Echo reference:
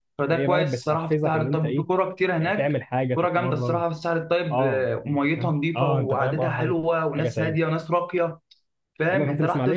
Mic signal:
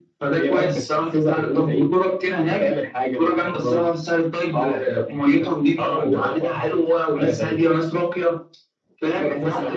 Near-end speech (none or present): none